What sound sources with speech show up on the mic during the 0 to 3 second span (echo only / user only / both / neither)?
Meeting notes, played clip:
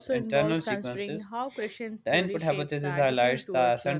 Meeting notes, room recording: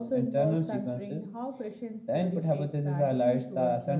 echo only